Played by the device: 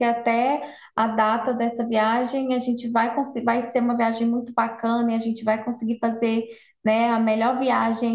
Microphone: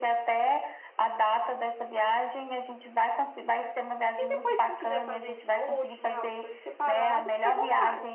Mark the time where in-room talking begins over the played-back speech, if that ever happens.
4 s

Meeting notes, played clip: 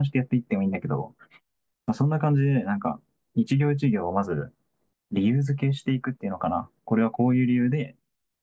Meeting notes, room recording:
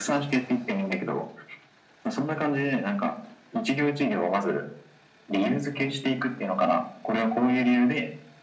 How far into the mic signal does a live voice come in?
none

